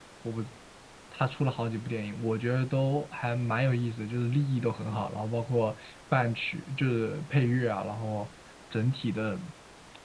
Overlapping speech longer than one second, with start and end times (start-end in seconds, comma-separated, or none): none